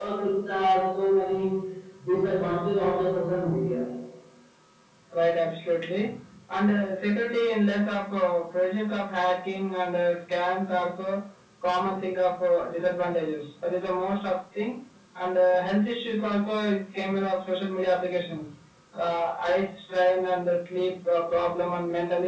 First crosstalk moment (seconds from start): none

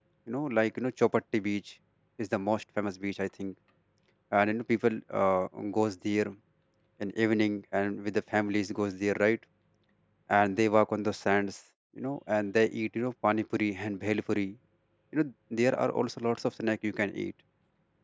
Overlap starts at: none

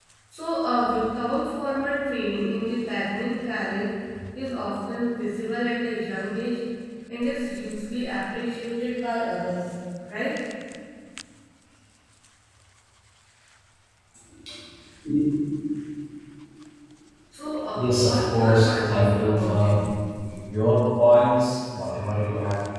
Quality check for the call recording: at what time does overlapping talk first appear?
17.7 s

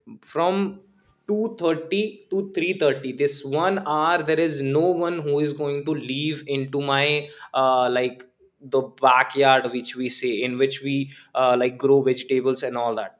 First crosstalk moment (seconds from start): none

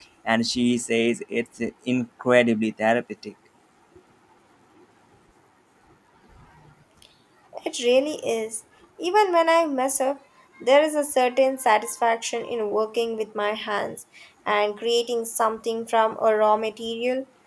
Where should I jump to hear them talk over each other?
none

